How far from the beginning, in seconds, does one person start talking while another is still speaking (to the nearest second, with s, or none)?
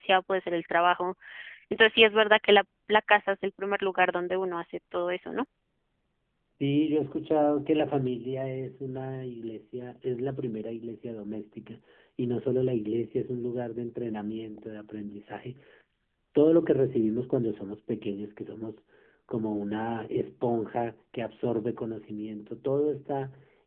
none